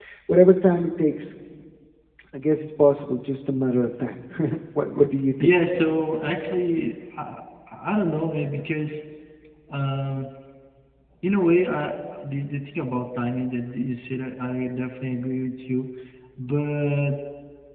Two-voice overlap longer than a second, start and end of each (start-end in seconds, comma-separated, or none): none